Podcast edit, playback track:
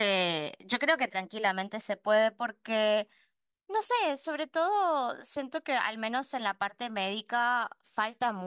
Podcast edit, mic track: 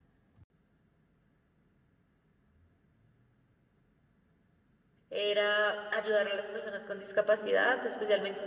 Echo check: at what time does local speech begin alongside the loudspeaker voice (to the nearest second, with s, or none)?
5 s